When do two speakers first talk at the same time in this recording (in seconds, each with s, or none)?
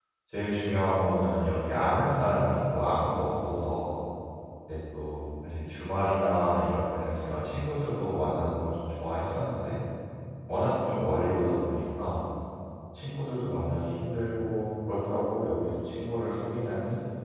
none